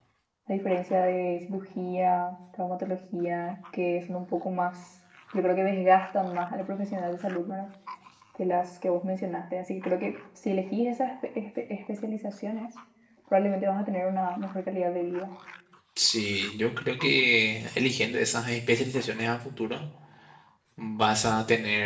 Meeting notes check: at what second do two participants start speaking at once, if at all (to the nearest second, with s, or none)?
none